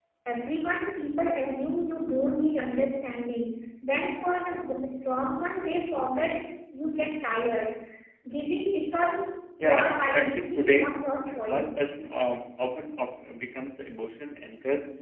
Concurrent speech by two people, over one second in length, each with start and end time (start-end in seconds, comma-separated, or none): 9.6-10.9